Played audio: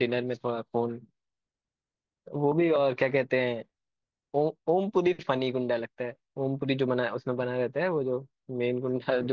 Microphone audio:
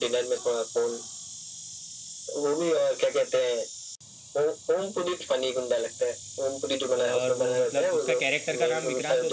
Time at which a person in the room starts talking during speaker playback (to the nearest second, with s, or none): 7 s